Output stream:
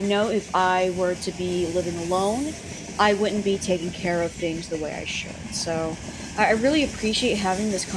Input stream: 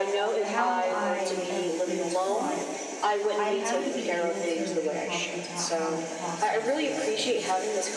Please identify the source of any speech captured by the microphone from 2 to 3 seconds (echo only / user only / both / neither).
both